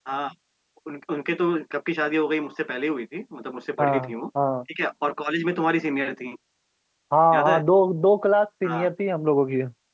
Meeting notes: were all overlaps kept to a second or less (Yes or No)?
Yes